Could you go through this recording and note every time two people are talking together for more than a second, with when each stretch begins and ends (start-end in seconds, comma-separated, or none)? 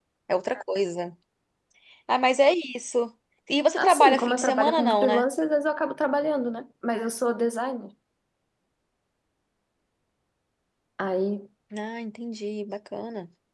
3.8-5.2